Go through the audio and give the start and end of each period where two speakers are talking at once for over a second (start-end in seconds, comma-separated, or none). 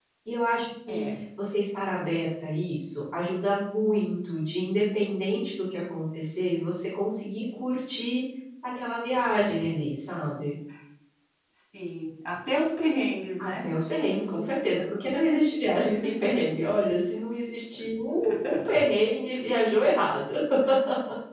none